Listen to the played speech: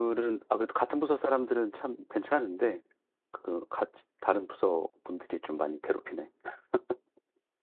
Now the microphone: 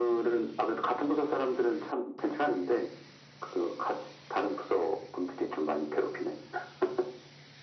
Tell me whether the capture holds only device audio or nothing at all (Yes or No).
Yes